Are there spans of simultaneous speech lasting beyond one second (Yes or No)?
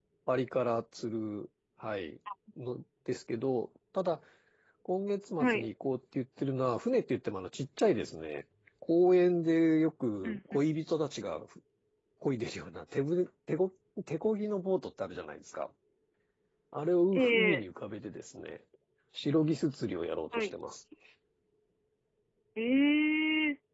No